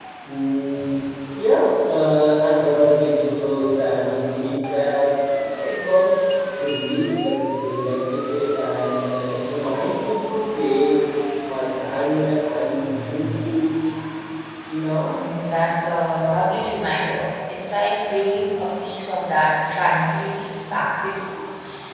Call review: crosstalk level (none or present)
none